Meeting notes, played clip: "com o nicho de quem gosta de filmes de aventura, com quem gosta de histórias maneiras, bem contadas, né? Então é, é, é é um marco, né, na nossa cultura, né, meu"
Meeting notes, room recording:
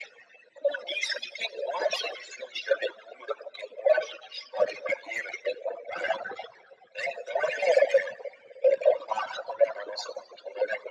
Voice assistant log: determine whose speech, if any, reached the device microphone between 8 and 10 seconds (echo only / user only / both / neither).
echo only